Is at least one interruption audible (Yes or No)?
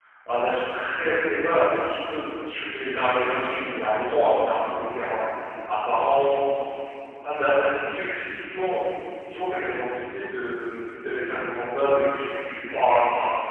No